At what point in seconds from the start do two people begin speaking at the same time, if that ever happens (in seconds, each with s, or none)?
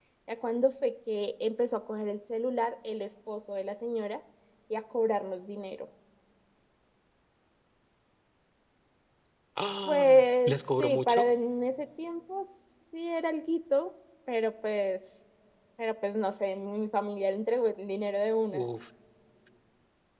9.8 s